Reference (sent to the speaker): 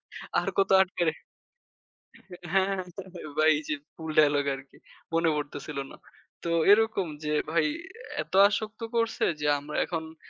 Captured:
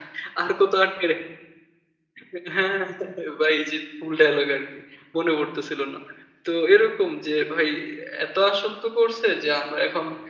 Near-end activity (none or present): none